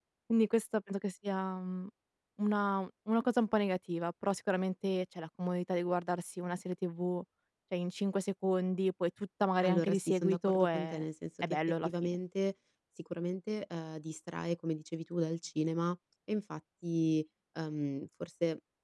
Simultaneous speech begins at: 10 s

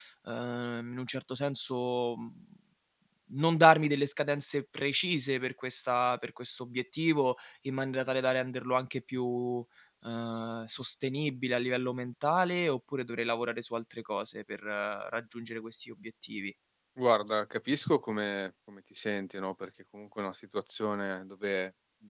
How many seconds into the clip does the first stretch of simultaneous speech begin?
none

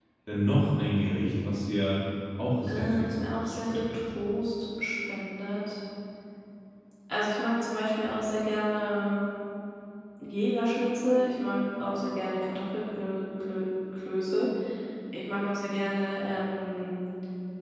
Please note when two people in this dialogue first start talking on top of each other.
3 s

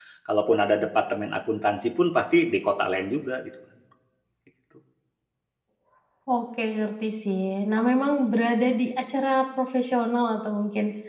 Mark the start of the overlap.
none

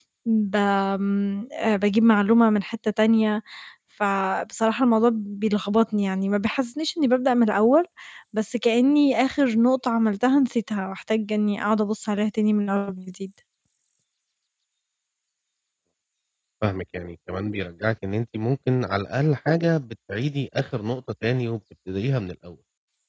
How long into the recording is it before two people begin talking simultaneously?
none

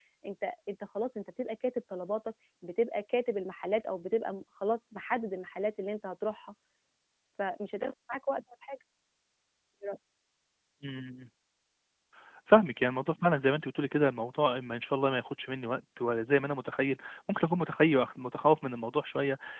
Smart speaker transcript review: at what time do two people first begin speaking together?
none

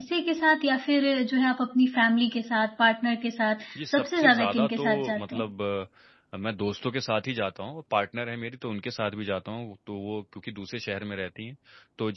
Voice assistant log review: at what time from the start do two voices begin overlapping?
4 s

